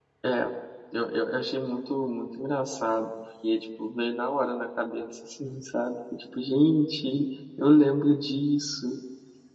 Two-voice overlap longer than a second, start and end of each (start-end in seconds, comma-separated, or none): none